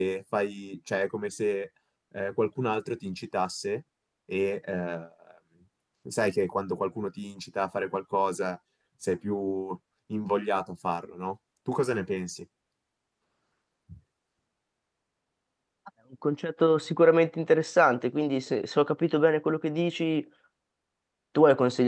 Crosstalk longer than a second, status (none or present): none